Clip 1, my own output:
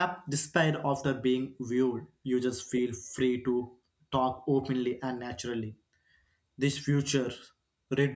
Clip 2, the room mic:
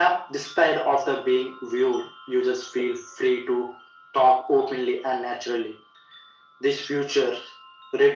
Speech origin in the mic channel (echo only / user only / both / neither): echo only